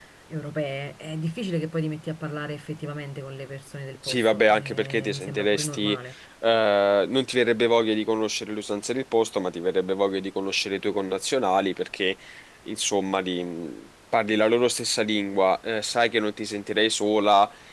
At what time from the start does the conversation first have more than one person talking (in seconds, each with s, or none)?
4.0 s